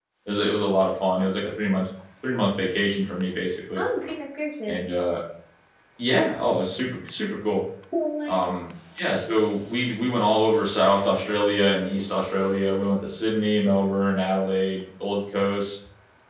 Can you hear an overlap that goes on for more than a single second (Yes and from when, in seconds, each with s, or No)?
No